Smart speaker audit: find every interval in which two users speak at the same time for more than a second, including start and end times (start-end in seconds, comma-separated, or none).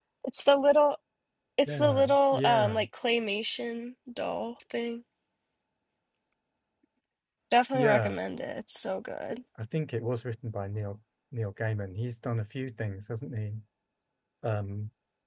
1.7-2.9